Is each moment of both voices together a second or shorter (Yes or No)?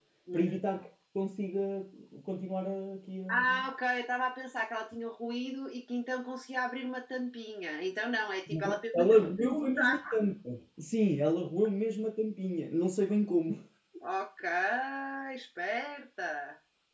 No